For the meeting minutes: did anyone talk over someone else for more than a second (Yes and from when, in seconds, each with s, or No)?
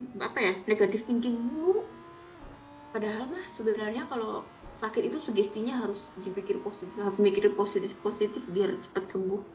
No